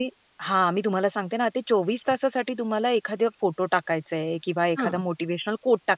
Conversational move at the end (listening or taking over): listening